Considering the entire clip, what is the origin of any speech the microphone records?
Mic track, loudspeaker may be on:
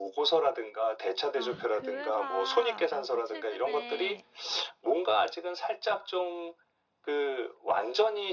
both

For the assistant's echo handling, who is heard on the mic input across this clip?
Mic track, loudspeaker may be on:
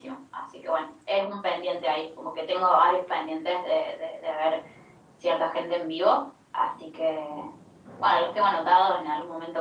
echo only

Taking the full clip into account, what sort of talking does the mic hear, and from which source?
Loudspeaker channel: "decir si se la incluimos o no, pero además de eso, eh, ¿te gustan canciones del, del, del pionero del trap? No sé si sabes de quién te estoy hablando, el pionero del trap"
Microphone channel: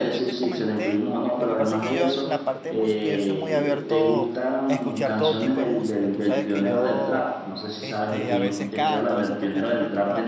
both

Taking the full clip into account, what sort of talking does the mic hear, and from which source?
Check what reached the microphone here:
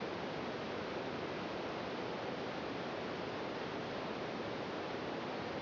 neither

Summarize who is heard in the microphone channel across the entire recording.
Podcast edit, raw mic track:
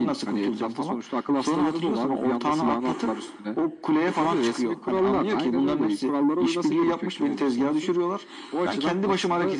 echo only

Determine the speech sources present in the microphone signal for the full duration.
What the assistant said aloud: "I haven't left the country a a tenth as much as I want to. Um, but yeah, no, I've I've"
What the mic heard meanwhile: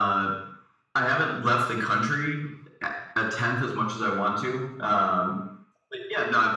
echo only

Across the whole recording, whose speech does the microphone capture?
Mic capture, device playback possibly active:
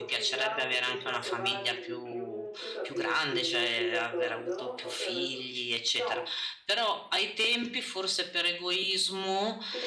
both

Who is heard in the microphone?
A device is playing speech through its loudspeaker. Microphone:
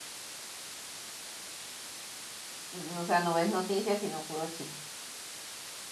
user only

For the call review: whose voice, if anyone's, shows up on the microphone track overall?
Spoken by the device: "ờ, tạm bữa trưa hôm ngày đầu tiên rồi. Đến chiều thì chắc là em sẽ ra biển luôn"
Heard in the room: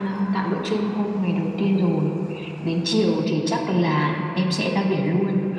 echo only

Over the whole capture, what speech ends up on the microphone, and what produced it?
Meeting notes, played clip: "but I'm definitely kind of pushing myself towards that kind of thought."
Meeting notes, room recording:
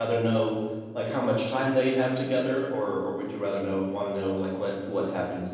user only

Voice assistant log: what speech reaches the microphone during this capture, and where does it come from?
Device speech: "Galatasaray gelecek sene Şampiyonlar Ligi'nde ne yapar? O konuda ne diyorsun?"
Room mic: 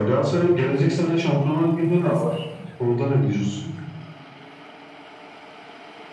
both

